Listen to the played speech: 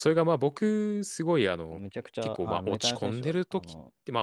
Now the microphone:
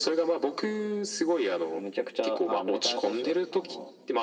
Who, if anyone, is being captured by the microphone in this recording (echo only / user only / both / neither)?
echo only